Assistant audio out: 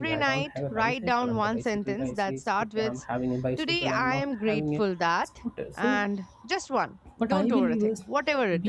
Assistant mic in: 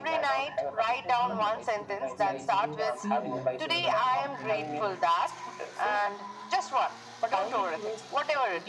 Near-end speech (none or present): present